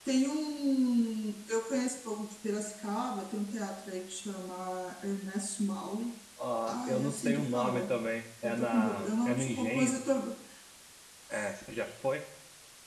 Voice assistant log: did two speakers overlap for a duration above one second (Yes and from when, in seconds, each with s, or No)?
Yes, from 6.7 s